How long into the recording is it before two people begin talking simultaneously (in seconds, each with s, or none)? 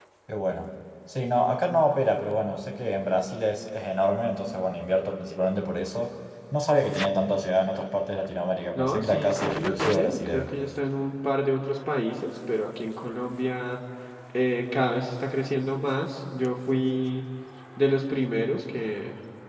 8.8 s